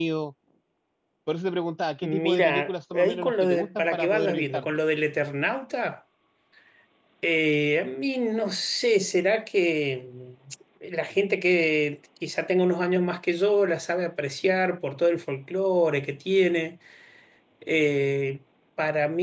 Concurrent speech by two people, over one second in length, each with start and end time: 2.0-4.7

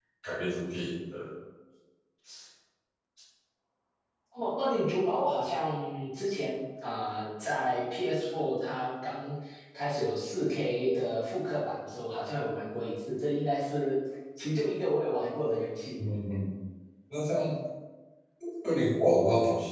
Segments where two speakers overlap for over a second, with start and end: none

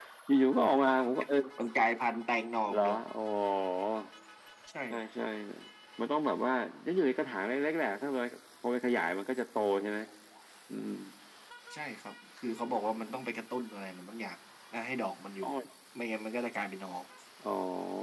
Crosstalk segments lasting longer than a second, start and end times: none

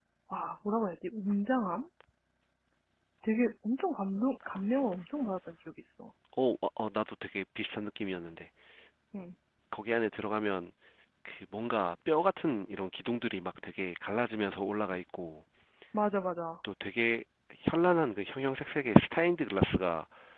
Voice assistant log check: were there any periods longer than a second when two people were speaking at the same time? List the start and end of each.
none

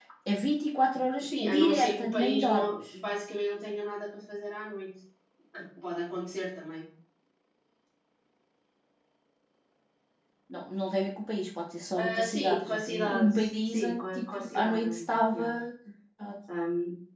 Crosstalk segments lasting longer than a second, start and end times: 1.4-2.8, 11.9-15.4

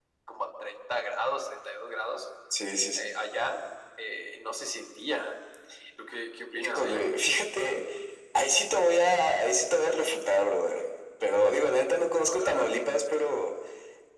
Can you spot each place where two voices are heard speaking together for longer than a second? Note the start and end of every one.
none

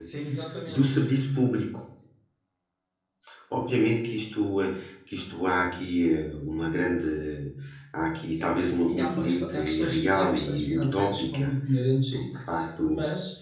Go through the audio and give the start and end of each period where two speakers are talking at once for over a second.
8.9-11.5

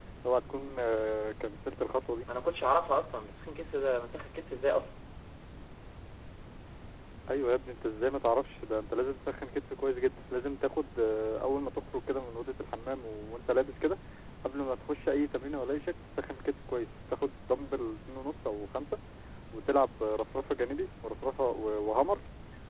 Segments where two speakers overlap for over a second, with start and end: none

